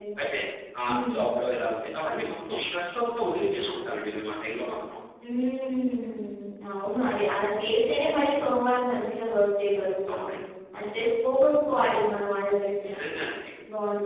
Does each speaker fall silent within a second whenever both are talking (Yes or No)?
Yes